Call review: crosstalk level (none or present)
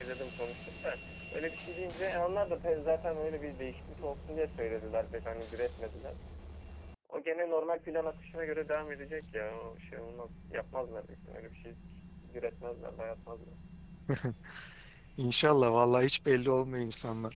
none